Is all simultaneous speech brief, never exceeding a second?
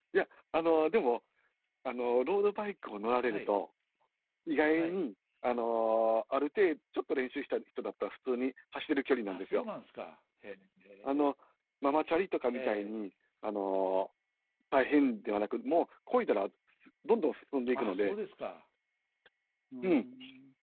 Yes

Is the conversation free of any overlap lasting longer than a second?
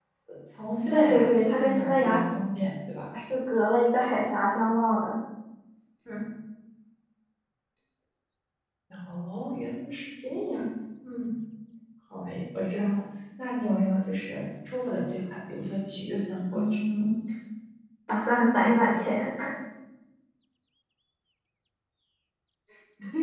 No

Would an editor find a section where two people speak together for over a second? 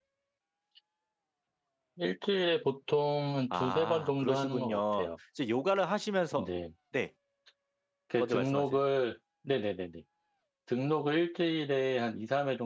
Yes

